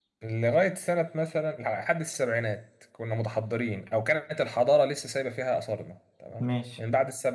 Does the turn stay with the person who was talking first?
Yes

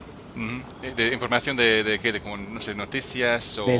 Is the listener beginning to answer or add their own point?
Yes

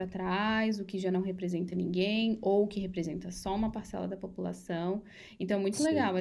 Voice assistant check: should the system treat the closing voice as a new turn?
No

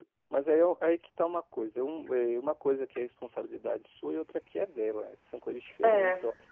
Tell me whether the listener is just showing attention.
Yes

